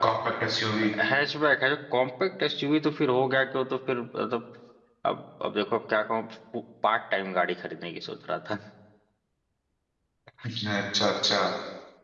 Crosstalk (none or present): none